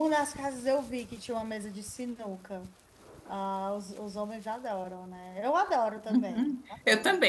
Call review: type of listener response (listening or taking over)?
taking over